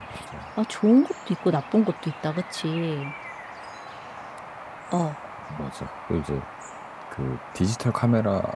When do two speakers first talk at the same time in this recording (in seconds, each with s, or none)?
none